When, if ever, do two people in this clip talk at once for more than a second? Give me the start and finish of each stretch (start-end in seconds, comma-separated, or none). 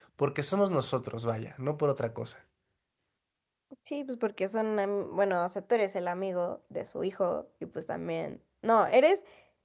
none